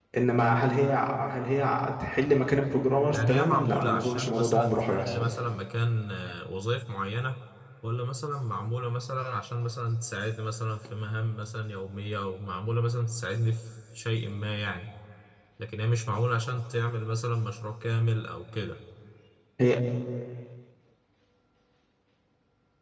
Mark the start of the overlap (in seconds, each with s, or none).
3.1 s